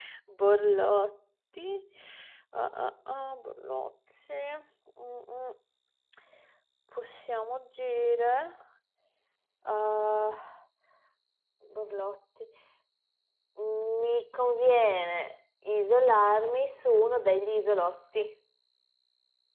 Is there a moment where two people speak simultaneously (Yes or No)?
No